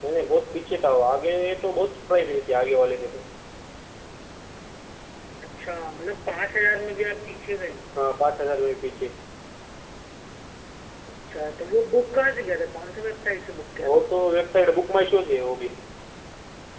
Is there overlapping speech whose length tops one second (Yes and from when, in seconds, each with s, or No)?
No